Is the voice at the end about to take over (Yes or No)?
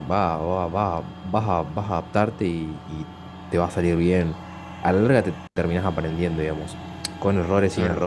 No